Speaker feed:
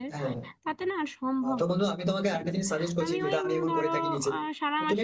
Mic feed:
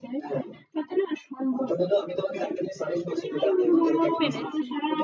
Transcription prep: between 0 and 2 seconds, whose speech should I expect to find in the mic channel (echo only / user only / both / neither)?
echo only